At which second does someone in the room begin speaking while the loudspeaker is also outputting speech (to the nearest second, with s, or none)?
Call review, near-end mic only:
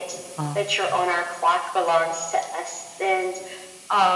0 s